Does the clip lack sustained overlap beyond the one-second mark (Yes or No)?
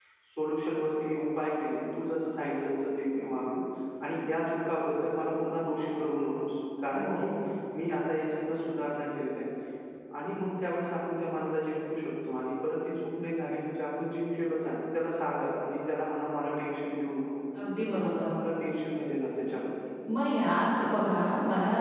Yes